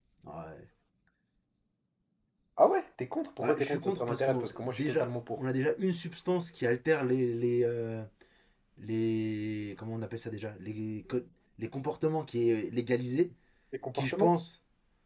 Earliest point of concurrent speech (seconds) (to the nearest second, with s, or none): 3 s